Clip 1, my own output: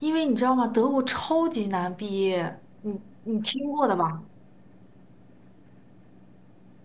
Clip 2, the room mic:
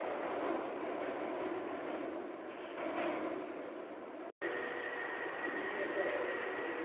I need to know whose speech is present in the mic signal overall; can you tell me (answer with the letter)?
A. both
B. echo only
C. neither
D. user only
C